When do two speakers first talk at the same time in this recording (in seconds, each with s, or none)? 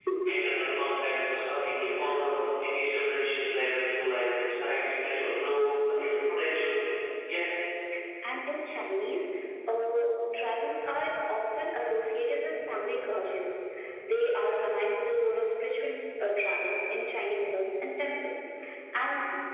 none